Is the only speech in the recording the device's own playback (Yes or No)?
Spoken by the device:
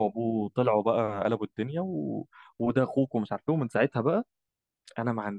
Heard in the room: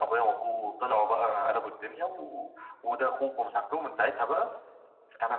Yes